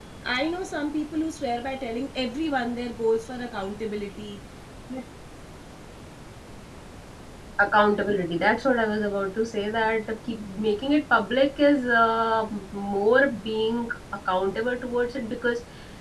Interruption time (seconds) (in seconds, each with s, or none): none